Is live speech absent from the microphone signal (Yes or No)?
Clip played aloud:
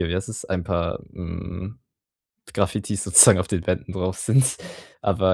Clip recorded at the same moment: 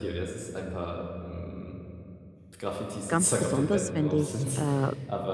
No